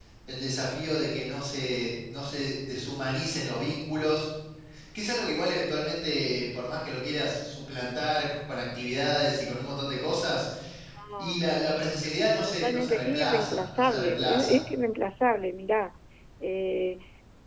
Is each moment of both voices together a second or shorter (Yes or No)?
No